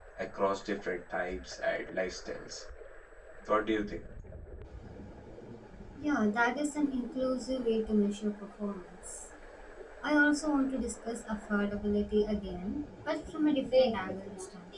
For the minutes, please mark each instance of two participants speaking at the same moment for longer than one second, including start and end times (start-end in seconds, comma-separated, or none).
none